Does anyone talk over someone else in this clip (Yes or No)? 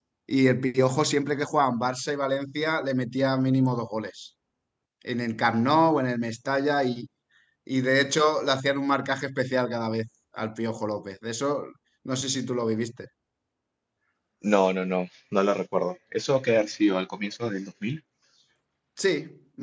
No